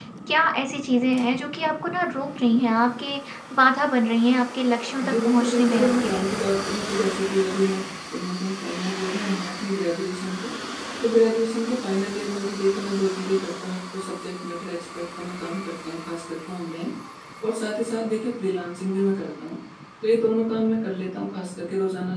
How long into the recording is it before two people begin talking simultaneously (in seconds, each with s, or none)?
5.0 s